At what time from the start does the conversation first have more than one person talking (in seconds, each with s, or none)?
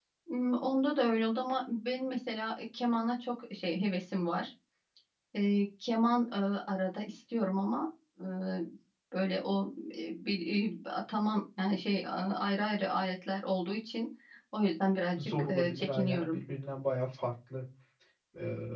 15.2 s